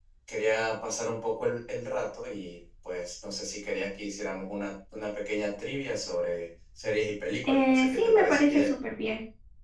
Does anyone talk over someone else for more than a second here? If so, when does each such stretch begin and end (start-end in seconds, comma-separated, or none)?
7.5-8.7